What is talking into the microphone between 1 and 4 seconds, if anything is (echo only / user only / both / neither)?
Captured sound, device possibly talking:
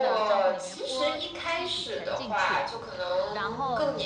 both